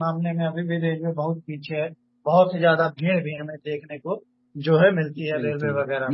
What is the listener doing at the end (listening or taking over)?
taking over